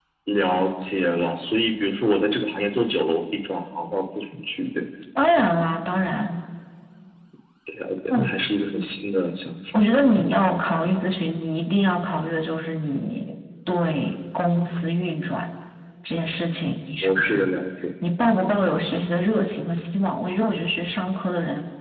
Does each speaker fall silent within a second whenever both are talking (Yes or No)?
Yes